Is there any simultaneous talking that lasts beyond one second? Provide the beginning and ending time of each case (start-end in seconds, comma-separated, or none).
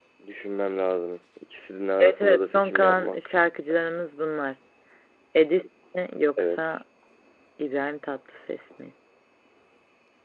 2.0-3.3